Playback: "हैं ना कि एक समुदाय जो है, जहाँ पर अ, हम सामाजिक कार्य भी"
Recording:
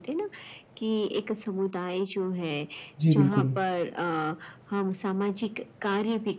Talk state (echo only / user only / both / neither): both